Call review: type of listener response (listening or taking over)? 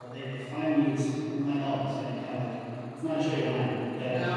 listening